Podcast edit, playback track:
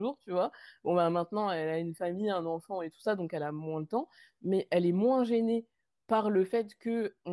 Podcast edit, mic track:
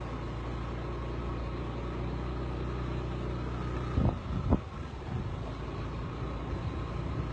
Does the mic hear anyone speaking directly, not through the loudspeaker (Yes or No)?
No